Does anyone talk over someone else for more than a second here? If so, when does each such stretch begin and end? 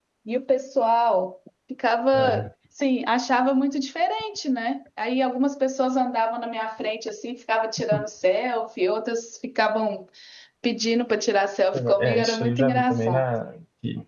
11.7-13.2

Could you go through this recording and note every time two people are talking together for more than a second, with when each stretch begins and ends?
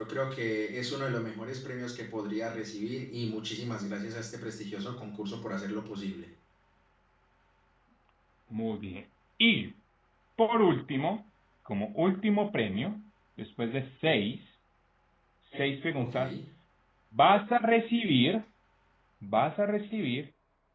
none

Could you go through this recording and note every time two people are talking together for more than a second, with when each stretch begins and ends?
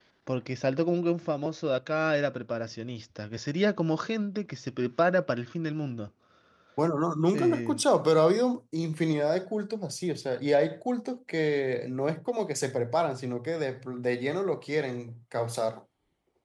none

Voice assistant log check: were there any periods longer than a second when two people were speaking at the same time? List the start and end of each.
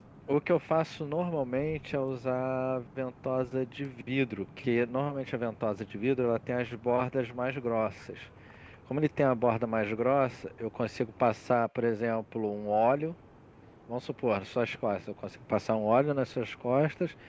none

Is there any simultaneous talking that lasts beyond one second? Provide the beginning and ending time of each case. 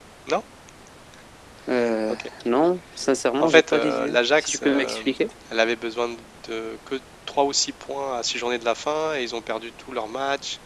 3.4-5.0

